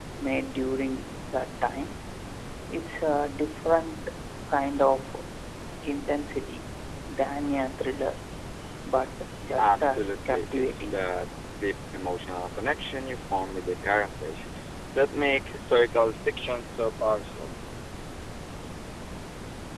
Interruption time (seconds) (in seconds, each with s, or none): 9.6 s